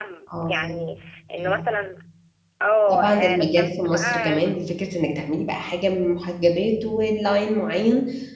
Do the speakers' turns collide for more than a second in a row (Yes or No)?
Yes